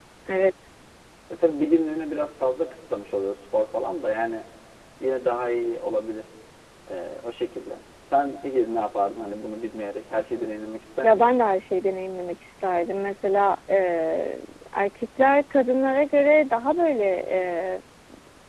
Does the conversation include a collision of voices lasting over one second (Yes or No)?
No